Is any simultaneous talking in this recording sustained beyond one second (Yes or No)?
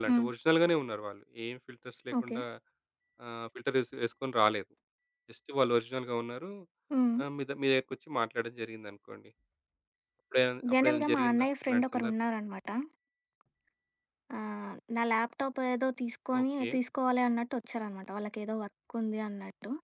Yes